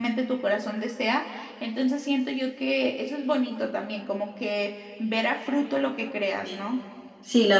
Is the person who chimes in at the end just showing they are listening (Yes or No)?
No